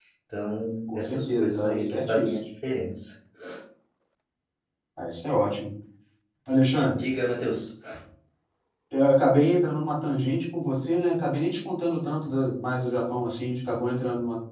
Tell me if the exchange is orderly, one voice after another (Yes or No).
No